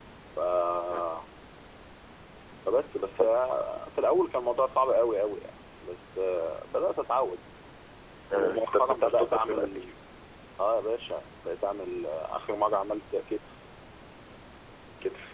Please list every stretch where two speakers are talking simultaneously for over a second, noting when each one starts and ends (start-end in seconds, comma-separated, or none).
8.3-9.8